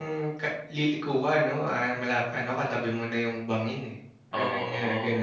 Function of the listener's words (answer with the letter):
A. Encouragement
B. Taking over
B